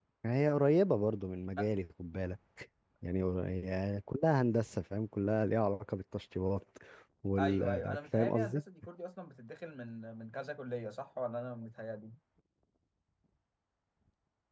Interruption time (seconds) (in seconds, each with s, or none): 7.4 s